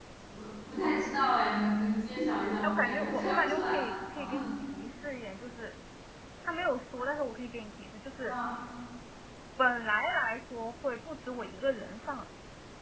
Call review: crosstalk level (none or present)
present